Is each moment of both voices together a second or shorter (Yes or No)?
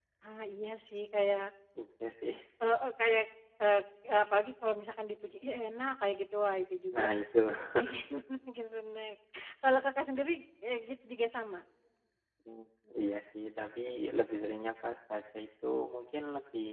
Yes